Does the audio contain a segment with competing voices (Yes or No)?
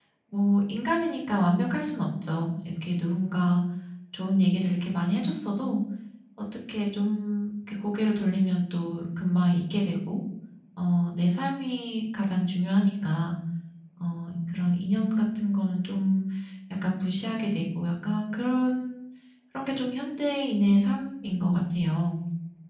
No